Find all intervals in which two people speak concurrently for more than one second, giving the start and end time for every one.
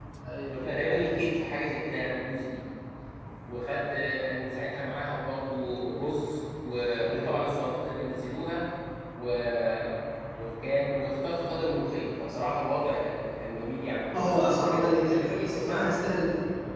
14.2-15.9

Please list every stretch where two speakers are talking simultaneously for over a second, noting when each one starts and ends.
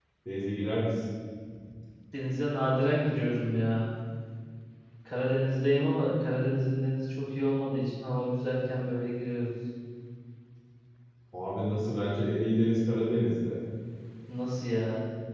none

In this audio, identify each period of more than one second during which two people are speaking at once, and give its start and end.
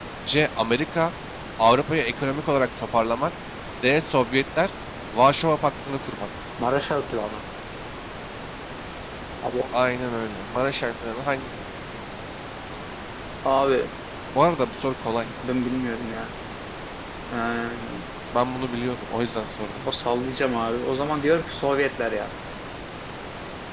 none

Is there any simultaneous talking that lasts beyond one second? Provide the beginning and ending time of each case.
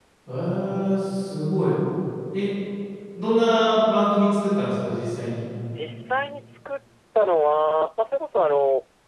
none

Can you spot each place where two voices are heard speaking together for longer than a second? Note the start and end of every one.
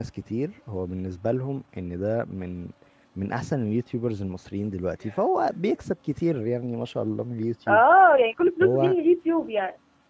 none

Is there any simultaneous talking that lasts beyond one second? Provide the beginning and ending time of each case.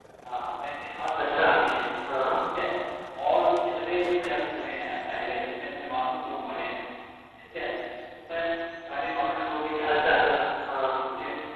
none

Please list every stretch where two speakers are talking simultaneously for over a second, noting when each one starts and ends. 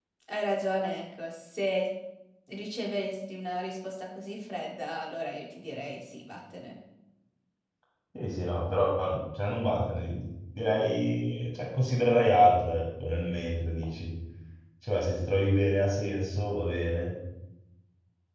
none

